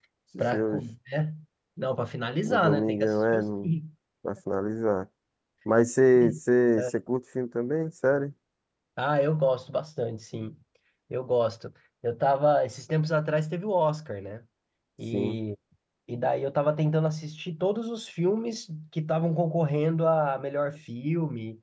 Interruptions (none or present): present